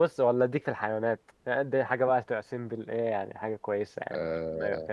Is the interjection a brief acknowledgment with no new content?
No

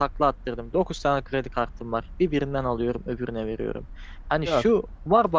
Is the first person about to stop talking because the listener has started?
No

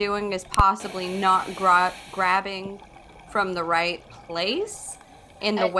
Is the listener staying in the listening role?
No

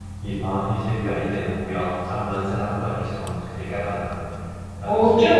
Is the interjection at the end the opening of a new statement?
Yes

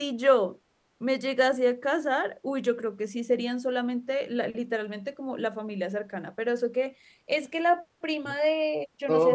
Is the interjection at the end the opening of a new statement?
Yes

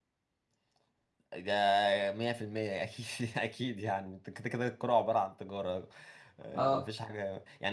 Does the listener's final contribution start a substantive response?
No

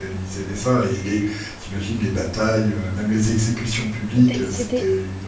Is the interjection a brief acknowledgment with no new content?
No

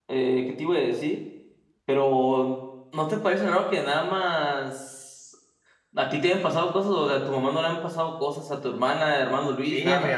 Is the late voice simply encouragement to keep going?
No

